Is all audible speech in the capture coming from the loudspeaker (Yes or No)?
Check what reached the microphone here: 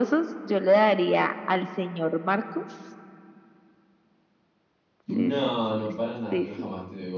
No